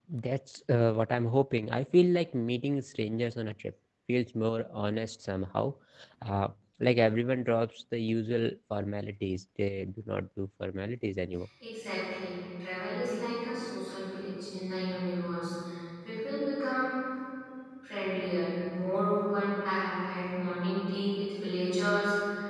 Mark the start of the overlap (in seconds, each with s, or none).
none